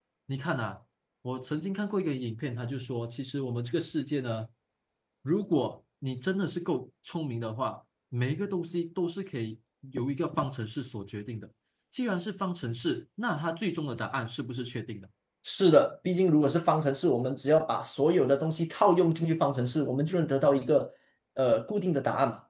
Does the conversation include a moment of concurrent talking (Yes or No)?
No